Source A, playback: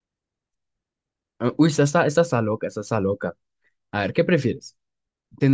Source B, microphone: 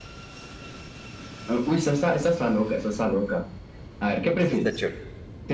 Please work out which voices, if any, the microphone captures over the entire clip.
both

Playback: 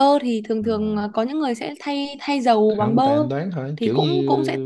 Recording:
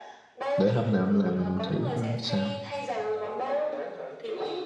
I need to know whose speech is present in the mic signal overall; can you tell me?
both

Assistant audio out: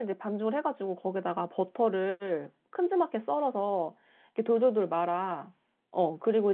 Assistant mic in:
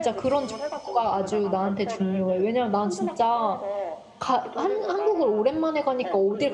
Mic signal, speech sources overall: both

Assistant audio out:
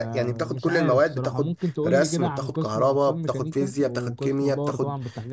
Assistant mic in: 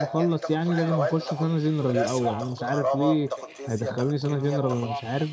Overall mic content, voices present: both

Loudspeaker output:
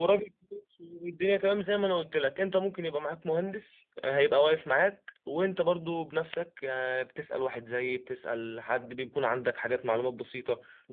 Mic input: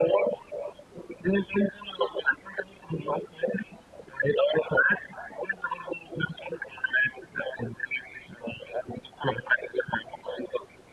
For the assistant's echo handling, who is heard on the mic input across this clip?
echo only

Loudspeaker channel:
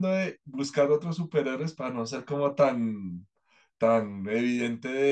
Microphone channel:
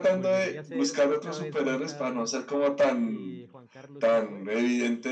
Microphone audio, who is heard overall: both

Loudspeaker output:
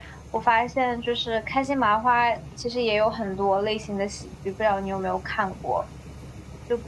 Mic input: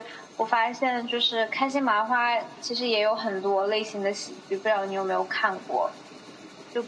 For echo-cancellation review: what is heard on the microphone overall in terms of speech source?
echo only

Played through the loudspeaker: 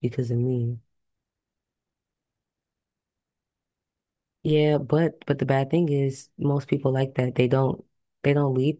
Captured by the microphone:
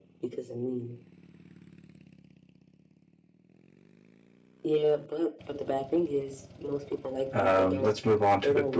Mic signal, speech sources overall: both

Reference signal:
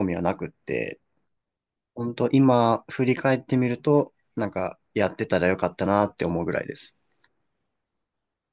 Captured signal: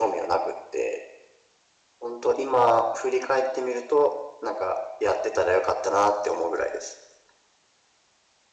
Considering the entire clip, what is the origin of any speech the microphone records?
echo only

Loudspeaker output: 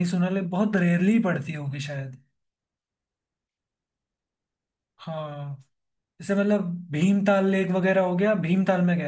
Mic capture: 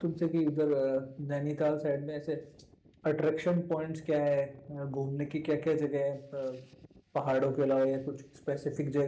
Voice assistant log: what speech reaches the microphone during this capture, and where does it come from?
user only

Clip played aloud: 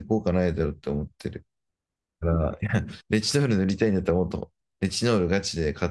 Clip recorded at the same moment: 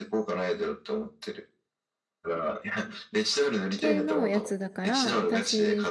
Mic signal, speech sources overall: both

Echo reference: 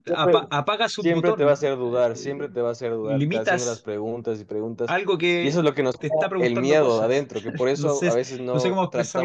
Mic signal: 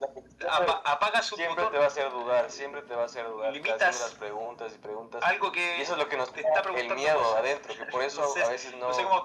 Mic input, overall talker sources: echo only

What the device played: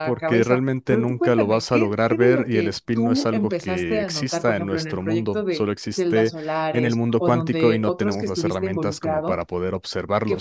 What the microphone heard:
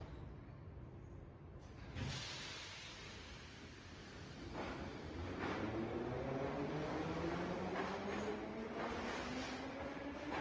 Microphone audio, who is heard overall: neither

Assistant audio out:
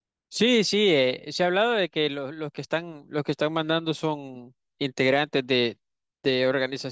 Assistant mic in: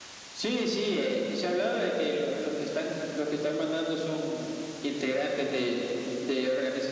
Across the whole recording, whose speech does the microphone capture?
echo only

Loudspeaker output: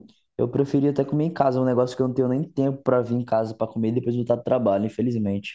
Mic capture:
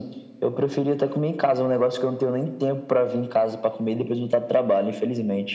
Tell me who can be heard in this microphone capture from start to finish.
echo only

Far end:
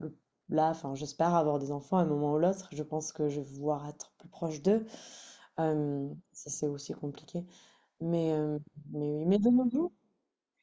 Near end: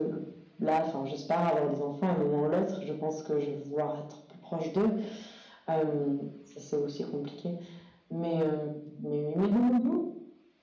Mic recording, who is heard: echo only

